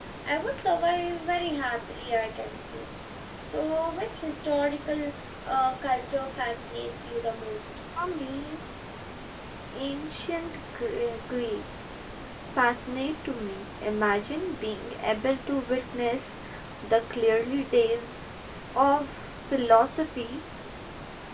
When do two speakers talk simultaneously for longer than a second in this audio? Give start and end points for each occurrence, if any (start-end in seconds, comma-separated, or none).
none